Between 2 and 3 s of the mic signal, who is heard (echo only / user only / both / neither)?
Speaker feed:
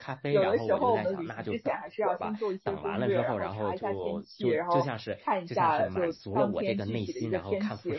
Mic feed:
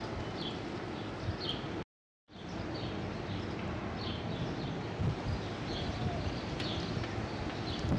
neither